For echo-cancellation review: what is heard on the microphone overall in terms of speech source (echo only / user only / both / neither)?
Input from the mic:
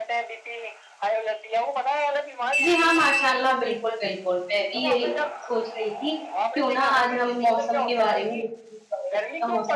both